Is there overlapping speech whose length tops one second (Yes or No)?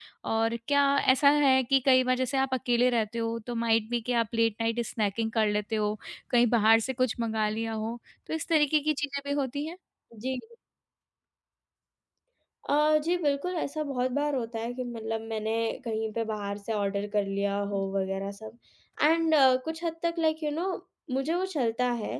No